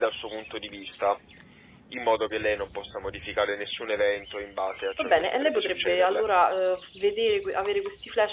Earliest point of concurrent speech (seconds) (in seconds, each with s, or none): 5.0 s